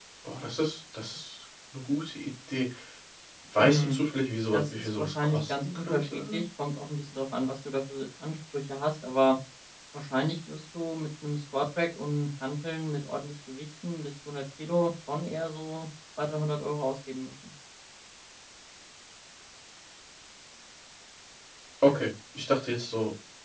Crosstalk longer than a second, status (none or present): present